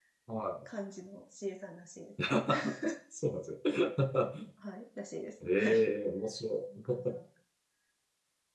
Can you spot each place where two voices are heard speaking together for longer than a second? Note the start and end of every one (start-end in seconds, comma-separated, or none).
none